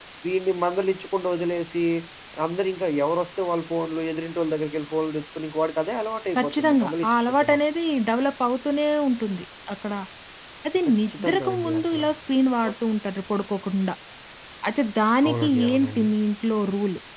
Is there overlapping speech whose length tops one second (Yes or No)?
Yes